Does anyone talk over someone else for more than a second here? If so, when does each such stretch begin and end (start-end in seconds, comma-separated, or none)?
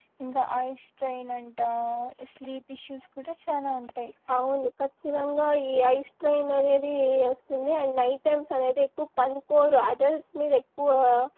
none